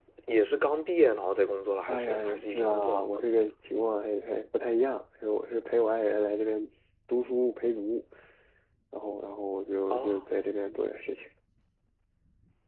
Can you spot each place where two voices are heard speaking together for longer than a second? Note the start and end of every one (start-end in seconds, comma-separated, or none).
1.9-3.5